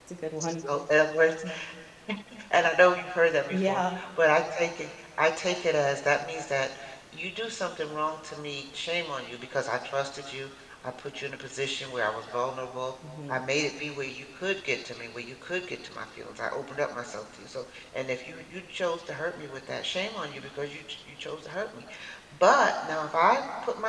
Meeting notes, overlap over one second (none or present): none